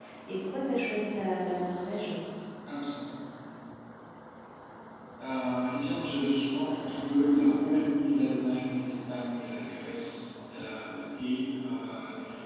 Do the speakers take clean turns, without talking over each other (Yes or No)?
Yes